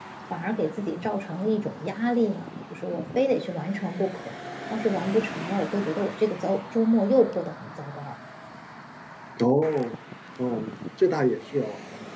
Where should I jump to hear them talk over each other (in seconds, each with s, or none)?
none